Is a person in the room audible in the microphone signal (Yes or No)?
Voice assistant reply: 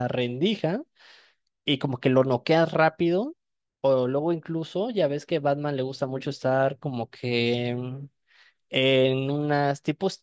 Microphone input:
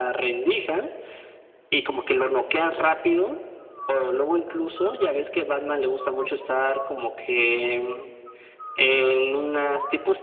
No